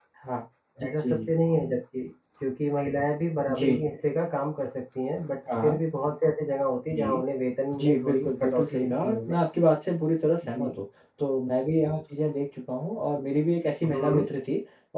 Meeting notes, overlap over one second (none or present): present